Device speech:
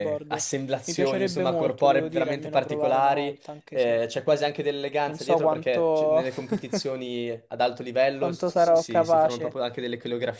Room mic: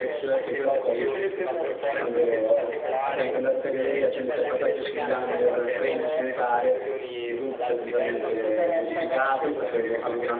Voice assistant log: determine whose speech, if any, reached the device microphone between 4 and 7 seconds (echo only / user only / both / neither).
both